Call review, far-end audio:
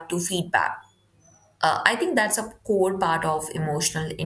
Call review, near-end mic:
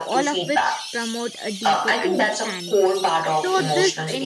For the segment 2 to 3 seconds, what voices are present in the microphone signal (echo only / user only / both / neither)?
both